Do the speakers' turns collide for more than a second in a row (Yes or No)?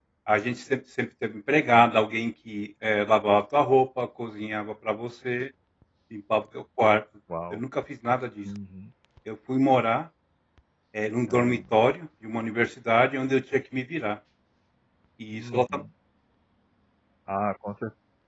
No